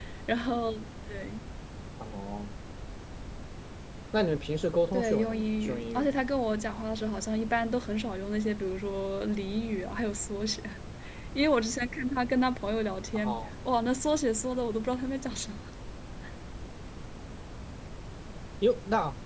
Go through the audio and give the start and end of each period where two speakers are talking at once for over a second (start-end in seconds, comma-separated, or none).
4.9-6.2